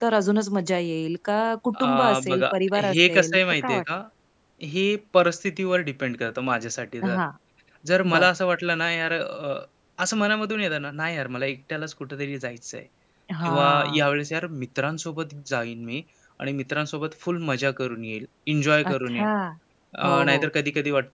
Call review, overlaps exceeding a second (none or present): present